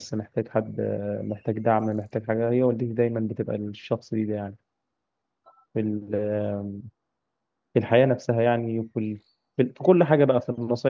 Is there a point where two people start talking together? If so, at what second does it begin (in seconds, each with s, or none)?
none